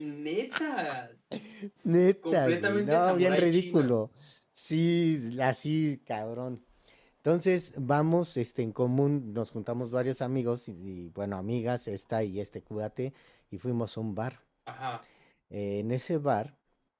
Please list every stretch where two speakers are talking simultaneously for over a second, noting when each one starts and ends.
2.3-4.0

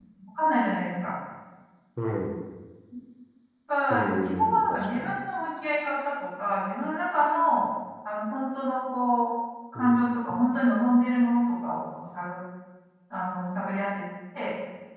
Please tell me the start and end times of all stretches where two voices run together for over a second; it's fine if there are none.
3.9-5.2

